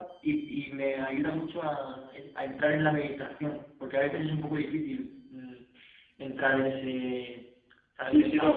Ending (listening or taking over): taking over